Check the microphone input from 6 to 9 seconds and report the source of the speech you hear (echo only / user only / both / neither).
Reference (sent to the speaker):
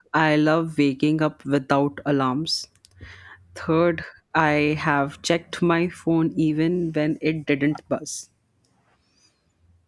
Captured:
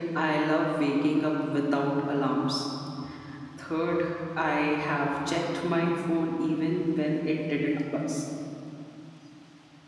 echo only